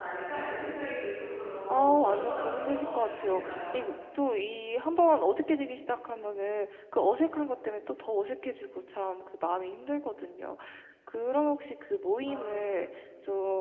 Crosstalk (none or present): present